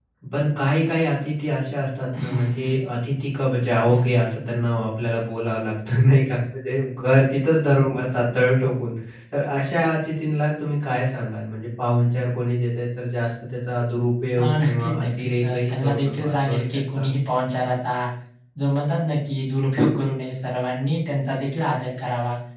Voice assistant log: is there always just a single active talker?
No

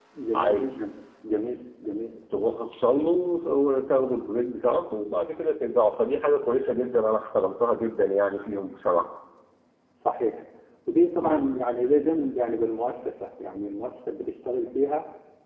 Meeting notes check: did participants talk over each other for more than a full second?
No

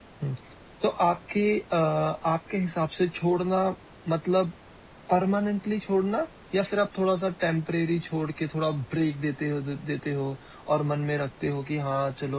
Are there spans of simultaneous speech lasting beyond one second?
No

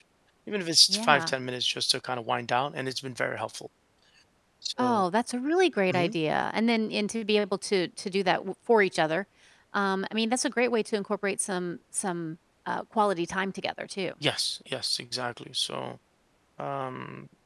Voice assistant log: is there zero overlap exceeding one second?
Yes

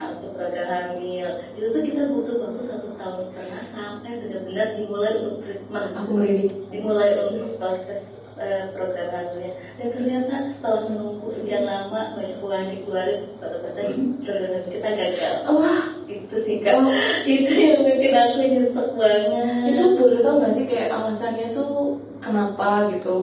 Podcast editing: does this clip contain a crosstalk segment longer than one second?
No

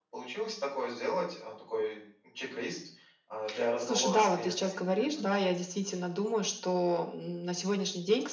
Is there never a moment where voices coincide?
No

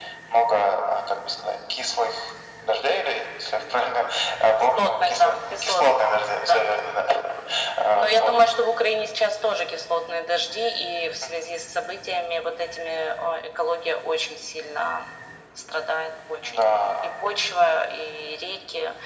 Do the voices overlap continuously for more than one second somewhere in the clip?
Yes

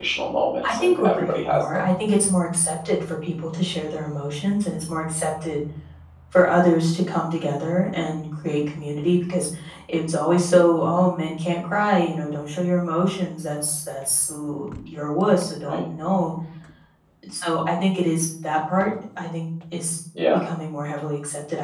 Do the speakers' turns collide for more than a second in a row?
Yes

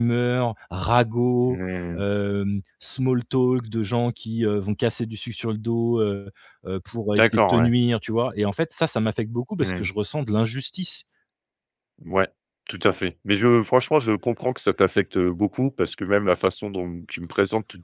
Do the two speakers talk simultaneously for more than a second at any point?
No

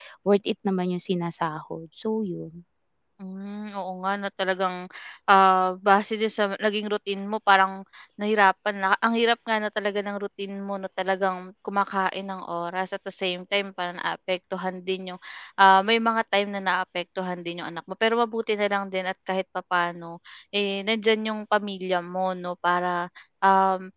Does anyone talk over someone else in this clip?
No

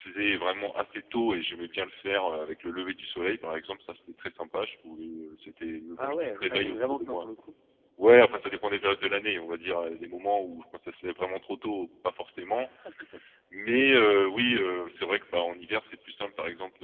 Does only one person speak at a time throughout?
No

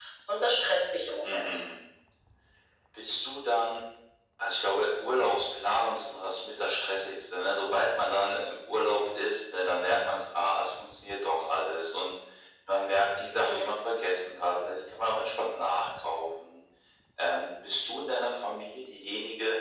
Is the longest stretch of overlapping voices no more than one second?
Yes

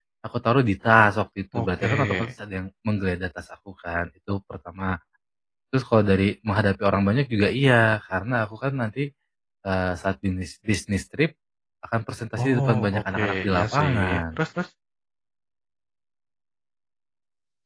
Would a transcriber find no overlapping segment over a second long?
No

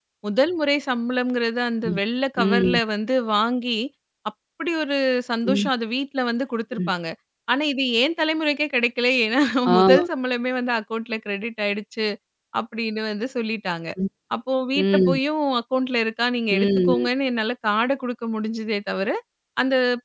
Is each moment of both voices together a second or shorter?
Yes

